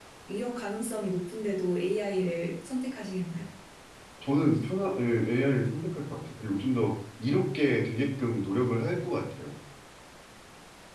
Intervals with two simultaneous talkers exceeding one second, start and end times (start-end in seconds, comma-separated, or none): none